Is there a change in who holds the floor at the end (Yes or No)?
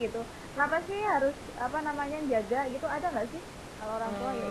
Yes